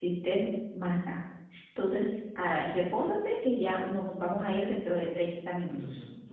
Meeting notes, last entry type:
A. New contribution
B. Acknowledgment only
A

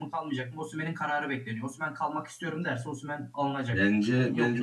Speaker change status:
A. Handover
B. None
A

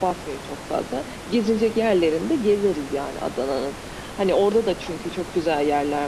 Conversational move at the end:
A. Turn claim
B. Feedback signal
B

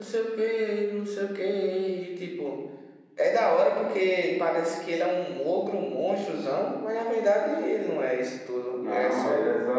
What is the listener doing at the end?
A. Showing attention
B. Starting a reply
B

